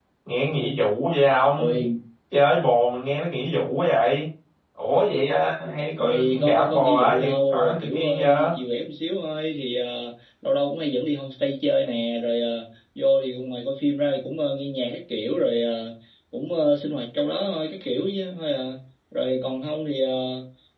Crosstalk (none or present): present